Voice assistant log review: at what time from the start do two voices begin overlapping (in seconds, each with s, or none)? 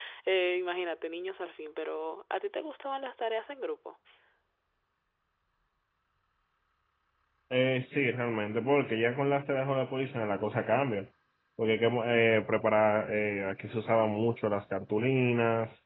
none